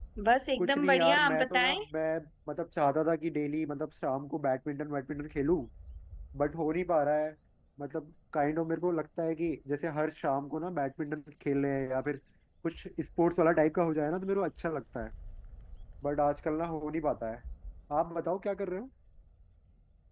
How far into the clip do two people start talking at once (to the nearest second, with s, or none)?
1 s